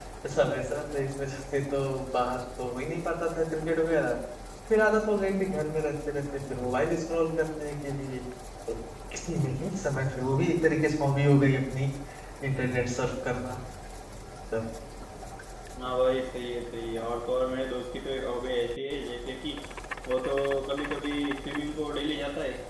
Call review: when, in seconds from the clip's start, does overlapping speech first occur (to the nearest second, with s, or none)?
none